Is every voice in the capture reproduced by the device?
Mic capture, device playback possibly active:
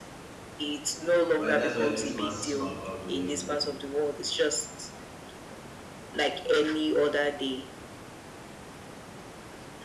No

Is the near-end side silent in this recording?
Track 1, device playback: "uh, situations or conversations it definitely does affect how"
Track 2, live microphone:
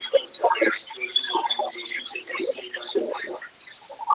Yes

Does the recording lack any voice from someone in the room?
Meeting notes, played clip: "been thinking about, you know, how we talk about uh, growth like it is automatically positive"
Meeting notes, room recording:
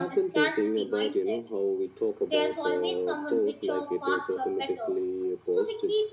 No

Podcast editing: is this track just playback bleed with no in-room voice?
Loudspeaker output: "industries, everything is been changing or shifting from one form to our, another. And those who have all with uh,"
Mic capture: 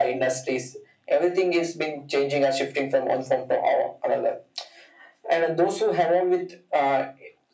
Yes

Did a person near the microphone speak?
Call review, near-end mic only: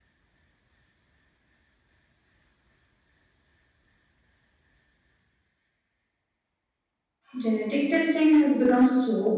Yes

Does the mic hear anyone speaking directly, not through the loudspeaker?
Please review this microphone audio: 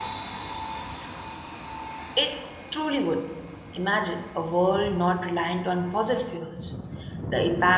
Yes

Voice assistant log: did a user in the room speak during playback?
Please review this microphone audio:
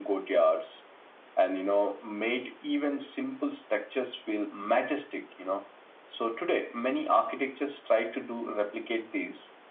No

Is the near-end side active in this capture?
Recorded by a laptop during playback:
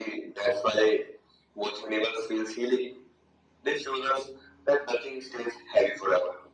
No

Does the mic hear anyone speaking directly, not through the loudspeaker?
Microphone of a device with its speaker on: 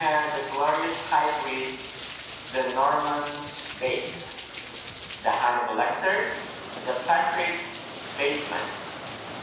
No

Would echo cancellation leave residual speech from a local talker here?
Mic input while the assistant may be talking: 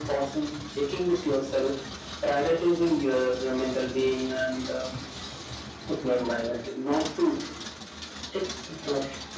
No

